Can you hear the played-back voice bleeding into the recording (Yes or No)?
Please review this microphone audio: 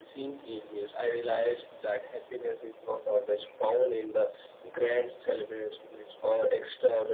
Yes